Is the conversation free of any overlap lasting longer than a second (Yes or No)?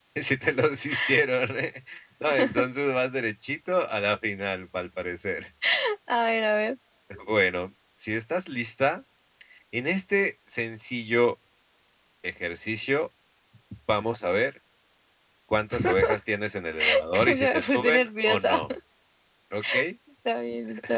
No